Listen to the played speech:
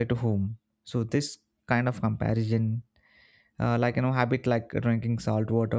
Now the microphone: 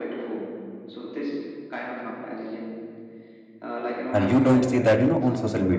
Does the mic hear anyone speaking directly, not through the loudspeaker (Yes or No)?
Yes